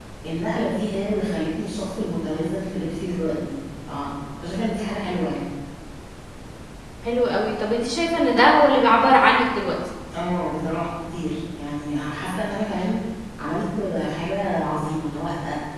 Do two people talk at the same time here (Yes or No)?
No